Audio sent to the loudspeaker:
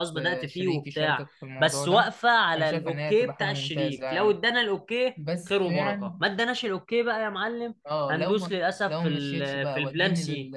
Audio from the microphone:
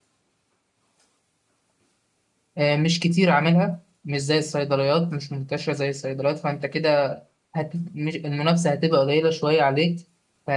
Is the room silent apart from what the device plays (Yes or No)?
No